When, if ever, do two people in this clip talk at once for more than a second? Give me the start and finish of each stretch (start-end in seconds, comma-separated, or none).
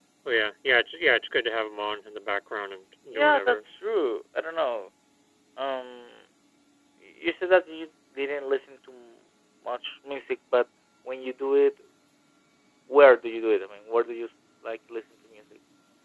none